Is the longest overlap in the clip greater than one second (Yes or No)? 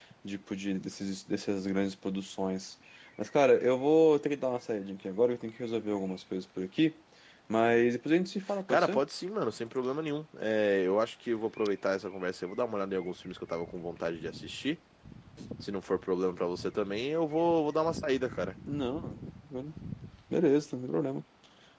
No